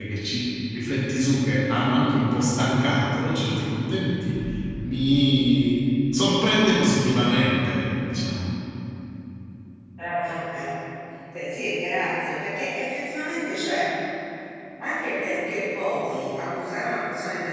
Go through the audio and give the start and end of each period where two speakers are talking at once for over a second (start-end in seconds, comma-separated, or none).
none